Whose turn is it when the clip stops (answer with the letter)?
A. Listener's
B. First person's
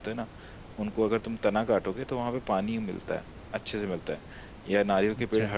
B